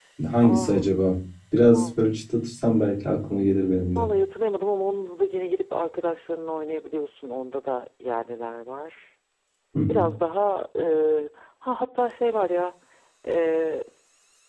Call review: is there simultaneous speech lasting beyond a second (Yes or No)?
No